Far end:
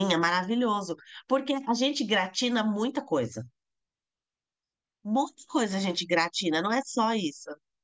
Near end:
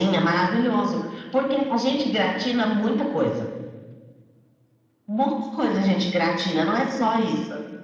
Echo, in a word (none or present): present